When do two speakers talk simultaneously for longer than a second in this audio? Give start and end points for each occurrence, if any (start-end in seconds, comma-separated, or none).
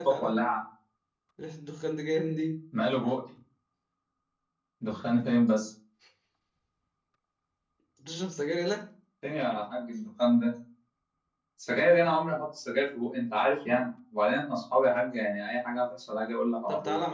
none